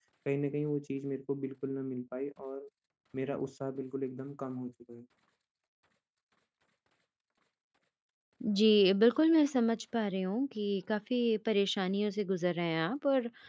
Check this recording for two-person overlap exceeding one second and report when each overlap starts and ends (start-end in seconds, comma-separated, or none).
none